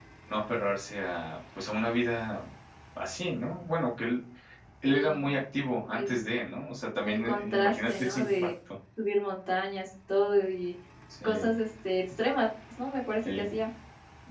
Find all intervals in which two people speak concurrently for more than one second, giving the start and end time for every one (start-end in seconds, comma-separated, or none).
7.0-8.5